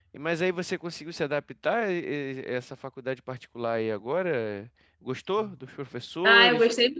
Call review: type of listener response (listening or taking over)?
taking over